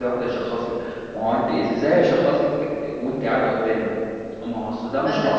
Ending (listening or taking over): taking over